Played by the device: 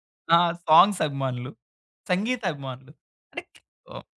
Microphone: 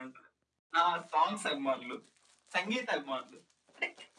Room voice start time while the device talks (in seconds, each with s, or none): none